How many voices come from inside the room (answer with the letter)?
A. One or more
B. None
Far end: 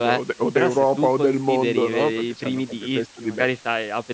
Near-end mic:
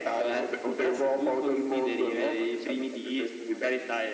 B